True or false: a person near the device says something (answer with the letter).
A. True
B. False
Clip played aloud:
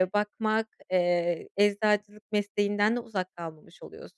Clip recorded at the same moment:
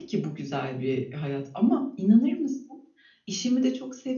A